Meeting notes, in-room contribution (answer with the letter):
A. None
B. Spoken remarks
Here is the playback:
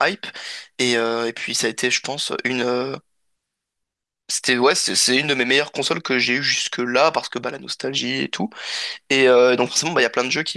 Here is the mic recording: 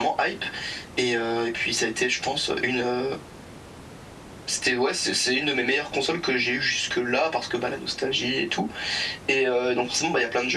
A